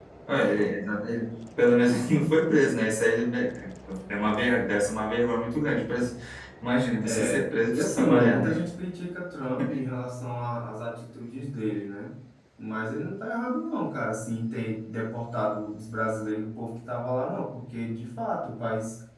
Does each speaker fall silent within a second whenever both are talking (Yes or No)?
No